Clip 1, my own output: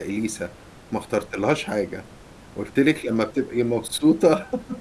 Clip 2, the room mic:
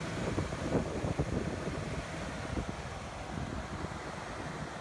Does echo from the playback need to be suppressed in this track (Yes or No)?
No